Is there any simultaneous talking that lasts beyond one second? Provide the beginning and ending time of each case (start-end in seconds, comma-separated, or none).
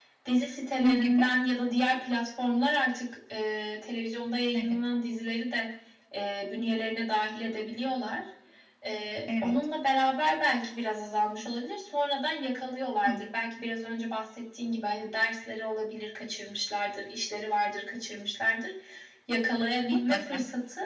none